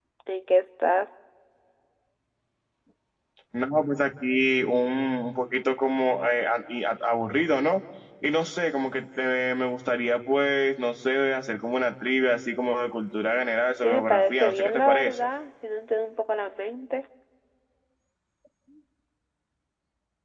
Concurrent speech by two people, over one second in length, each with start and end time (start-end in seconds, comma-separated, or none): 13.8-15.2